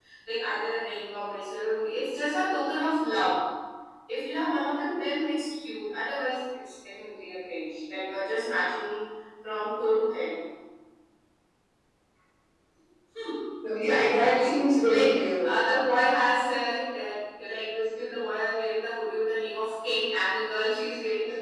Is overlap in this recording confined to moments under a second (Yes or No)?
No